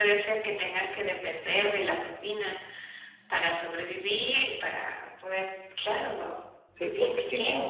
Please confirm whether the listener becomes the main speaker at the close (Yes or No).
Yes